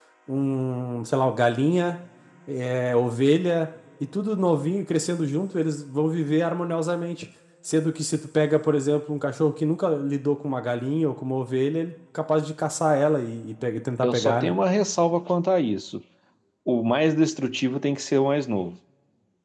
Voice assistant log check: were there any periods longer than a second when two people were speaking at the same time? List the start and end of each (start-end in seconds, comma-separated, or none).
none